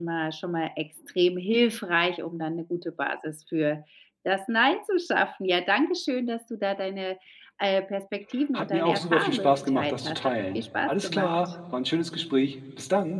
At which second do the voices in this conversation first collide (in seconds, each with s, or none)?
8.5 s